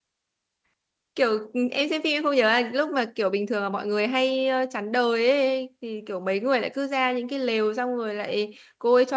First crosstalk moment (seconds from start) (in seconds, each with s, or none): none